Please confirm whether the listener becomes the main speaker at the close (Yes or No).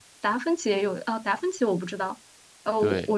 No